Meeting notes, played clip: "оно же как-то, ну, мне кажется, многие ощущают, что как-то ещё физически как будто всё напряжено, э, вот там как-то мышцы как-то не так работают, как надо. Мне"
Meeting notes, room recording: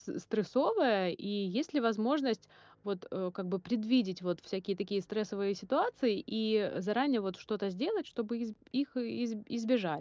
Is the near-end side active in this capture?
Yes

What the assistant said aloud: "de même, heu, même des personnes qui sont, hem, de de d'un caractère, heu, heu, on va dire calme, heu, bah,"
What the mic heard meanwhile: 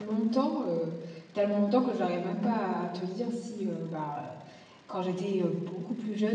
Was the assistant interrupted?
Yes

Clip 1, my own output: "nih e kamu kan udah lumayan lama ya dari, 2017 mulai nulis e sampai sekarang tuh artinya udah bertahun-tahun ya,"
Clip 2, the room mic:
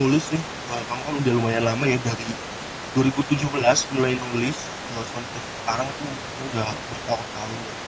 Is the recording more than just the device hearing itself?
No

